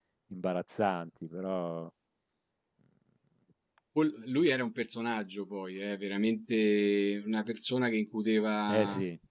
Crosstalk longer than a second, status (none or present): none